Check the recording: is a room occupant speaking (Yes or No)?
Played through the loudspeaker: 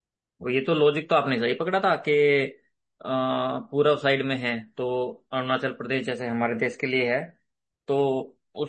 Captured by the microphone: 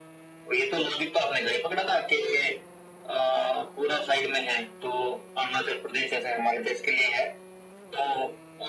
No